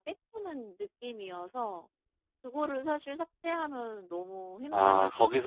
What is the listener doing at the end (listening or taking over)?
taking over